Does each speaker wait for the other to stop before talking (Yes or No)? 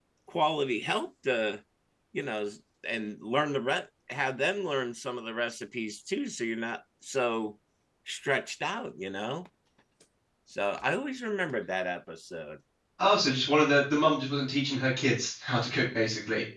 Yes